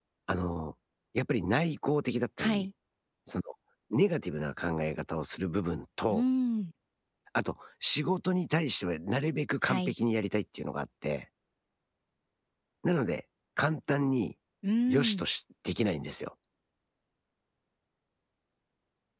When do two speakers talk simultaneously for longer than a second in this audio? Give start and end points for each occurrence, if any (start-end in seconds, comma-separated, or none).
none